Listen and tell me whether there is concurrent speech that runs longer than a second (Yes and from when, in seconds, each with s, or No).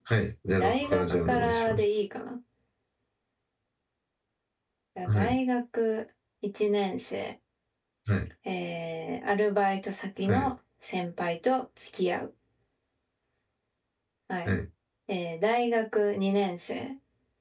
Yes, from 0.5 s